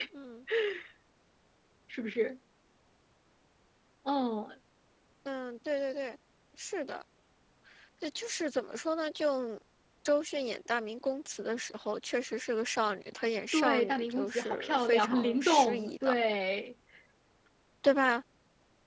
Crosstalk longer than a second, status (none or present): present